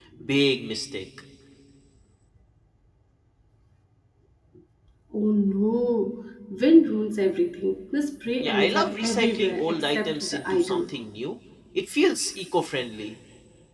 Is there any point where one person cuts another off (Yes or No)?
Yes